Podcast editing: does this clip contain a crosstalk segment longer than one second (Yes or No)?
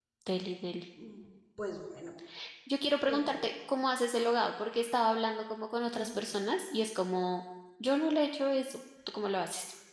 No